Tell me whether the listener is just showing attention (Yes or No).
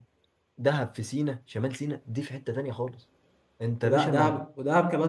No